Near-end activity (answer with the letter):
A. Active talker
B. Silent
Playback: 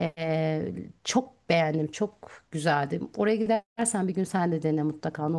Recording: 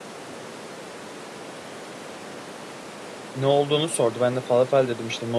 A